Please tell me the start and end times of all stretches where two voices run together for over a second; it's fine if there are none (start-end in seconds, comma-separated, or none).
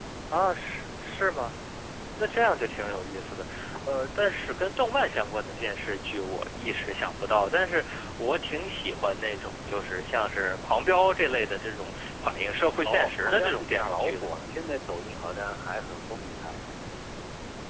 12.8-14.3